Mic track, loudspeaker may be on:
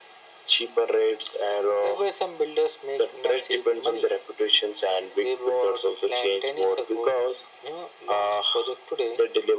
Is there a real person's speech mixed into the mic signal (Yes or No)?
No